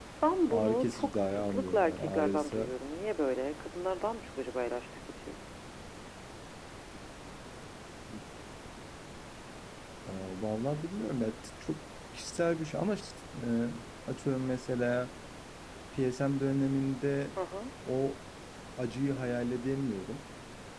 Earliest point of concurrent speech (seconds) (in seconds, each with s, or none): 0.5 s